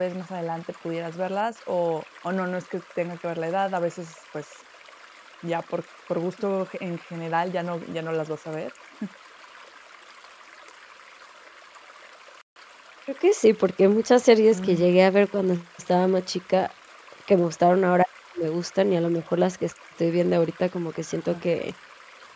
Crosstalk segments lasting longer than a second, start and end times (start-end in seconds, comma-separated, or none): none